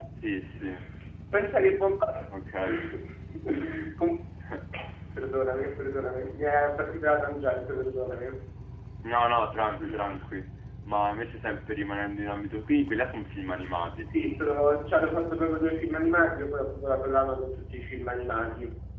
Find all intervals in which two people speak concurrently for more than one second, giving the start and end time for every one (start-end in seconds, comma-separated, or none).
none